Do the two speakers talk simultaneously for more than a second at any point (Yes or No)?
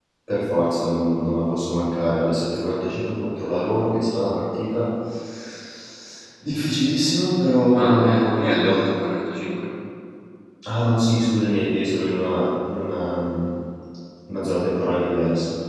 Yes